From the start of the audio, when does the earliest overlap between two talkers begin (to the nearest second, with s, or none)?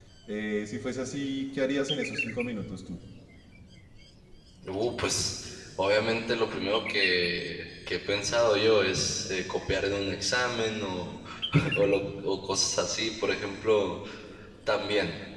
none